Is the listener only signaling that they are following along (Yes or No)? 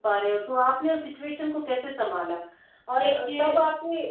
Yes